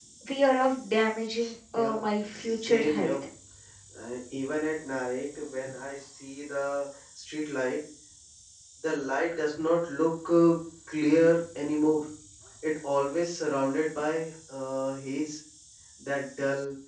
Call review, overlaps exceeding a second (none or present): present